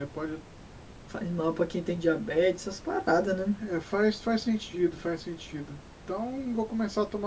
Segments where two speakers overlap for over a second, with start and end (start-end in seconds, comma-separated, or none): none